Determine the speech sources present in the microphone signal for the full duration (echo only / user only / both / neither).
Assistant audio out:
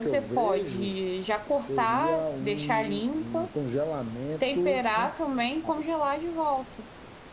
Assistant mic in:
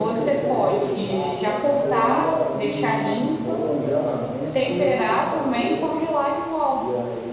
both